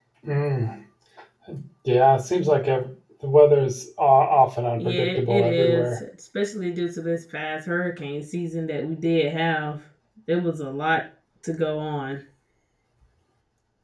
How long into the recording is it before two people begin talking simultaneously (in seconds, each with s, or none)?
4.8 s